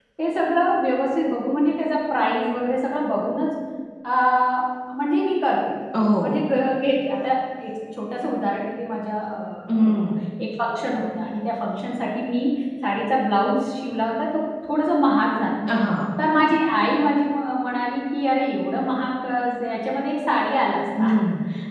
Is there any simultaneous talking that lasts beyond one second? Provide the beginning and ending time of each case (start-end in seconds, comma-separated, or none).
none